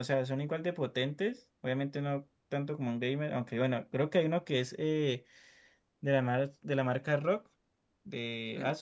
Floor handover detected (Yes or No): Yes